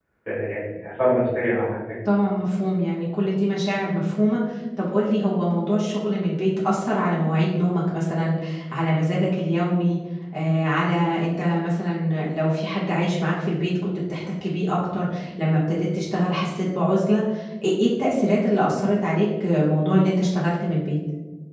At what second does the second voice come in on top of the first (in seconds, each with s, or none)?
none